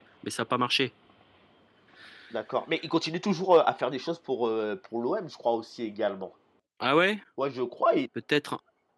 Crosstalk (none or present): none